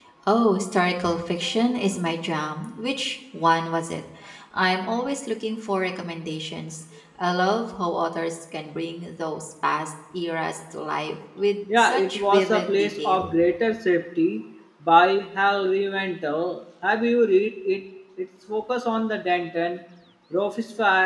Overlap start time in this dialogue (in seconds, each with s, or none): 11.7 s